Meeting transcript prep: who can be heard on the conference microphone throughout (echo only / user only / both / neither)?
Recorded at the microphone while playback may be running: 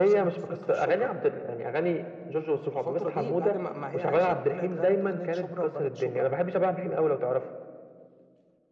echo only